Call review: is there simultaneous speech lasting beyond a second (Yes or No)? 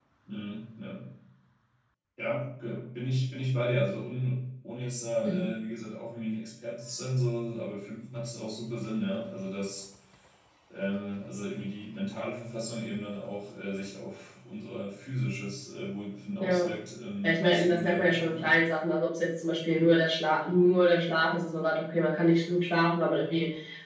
Yes